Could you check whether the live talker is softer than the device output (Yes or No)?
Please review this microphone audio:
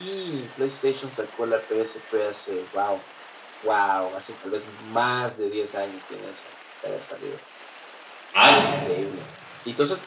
No